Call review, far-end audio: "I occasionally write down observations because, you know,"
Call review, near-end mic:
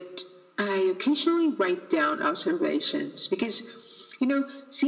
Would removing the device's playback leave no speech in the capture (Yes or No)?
Yes